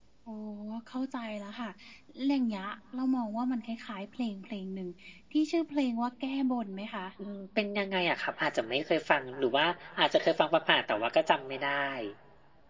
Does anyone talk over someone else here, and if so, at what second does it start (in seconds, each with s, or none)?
none